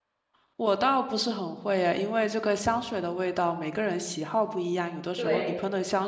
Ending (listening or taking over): listening